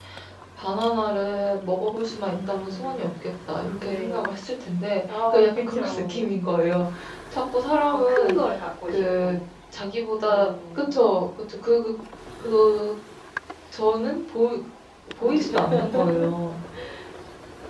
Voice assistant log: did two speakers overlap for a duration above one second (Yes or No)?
Yes